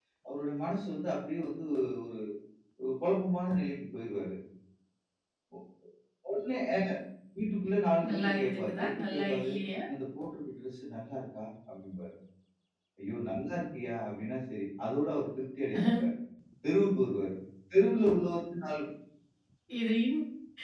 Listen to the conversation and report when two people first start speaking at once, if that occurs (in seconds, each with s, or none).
8.1 s